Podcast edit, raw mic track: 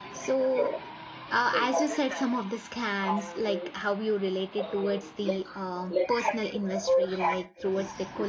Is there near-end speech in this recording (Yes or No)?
Yes